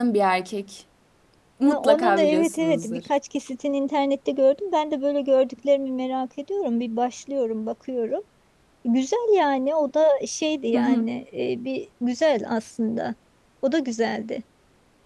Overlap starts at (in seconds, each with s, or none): 1.6 s